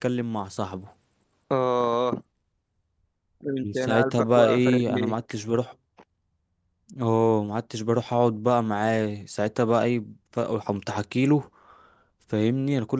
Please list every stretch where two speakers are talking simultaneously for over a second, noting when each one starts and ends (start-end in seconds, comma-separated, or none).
3.6-5.1